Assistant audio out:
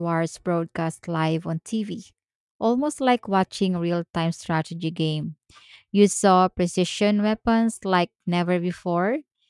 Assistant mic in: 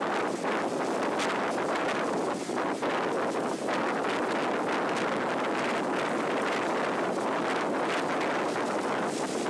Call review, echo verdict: none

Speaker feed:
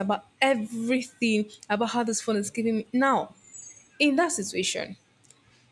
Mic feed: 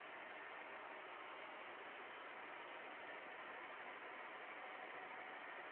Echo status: none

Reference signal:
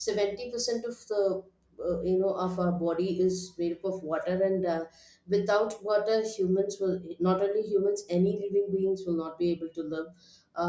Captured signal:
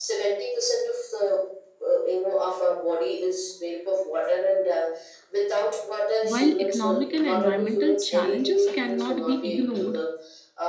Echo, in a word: present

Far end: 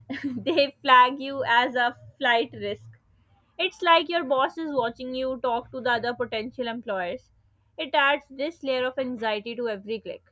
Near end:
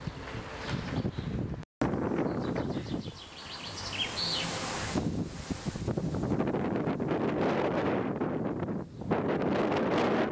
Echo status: none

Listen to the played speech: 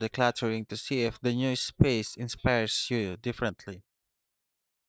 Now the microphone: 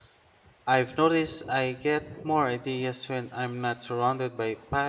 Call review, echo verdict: none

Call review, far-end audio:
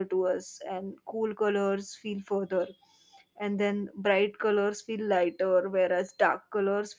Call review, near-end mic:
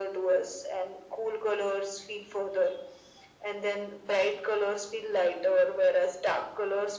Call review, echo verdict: present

